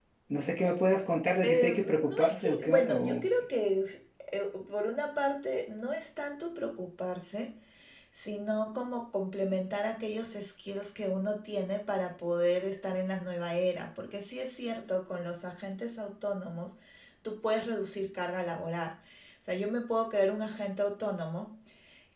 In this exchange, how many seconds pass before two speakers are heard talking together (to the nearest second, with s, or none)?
1 s